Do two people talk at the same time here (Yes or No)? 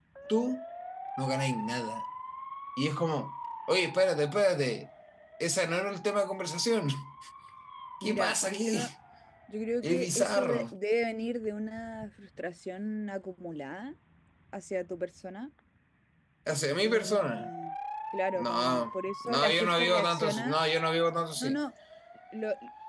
Yes